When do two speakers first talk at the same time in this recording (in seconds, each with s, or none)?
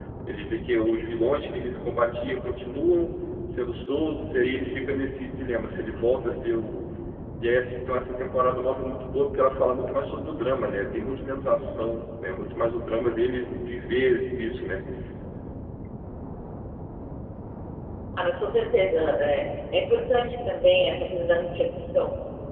none